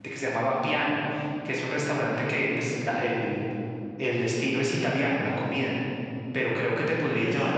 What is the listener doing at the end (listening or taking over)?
listening